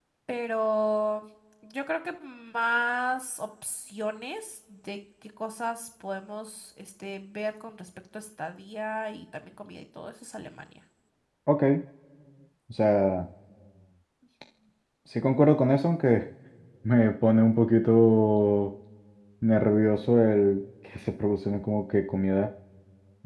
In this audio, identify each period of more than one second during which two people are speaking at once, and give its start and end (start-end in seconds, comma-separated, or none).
none